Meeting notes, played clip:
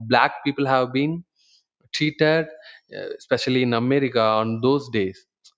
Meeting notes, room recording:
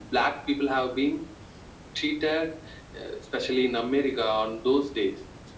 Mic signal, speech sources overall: echo only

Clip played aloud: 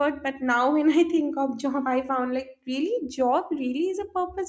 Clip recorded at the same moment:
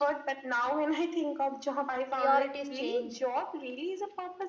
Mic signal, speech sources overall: both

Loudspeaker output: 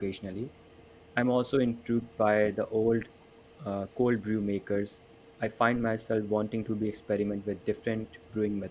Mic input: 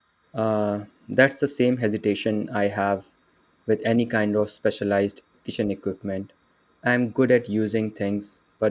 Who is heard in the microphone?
user only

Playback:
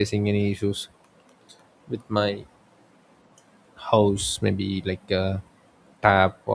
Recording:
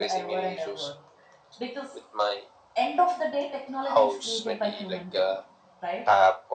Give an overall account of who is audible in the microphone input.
both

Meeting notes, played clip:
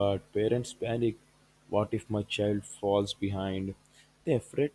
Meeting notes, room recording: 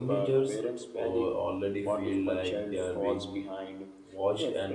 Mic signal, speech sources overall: both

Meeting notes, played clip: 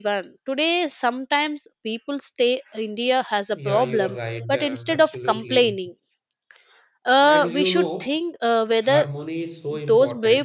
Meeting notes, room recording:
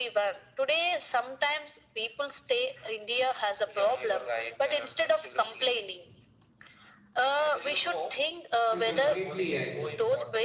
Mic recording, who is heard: both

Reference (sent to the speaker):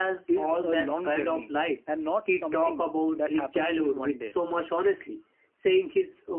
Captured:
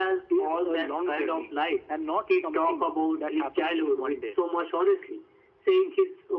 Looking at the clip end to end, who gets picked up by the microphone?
echo only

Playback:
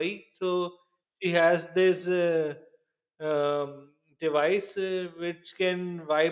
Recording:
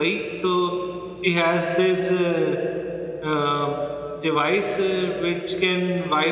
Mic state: echo only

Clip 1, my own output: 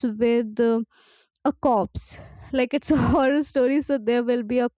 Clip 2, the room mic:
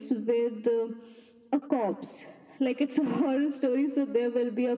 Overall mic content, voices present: echo only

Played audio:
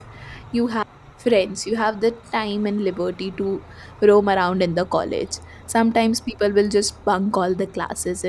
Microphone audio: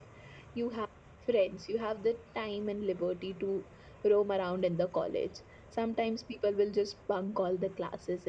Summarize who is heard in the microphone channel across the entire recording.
echo only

